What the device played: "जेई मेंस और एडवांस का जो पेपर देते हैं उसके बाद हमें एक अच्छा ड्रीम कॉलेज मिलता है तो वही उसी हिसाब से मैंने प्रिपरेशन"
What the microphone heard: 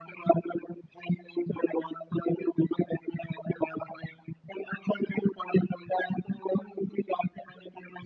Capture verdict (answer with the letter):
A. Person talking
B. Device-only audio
B